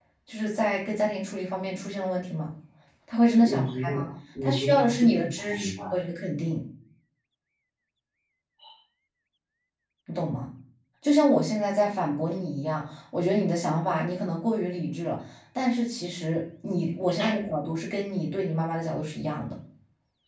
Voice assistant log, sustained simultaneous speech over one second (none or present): present